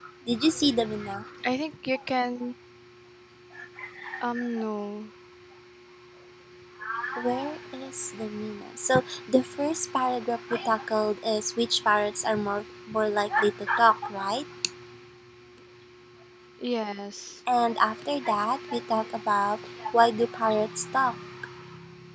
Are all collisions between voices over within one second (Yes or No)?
Yes